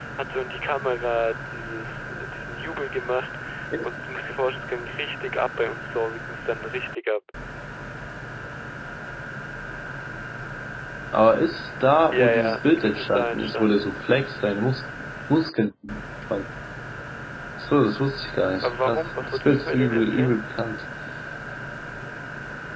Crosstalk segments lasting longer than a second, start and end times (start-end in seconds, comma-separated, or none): 12.1-13.9, 18.6-20.4